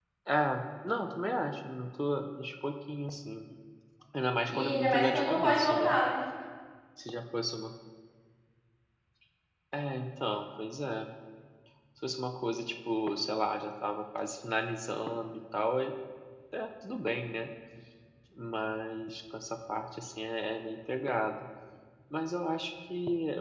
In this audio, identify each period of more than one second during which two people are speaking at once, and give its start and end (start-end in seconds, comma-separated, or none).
4.5-6.0